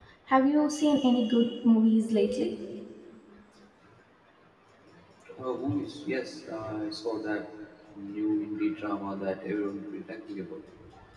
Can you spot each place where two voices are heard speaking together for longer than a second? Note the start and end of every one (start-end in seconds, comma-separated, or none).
none